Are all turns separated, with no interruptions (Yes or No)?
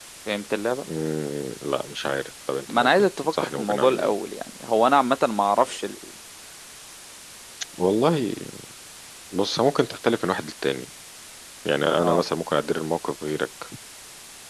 No